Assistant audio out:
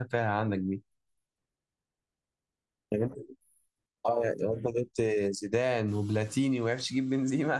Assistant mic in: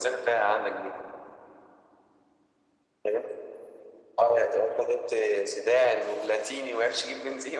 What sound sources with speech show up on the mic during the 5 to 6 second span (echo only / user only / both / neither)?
echo only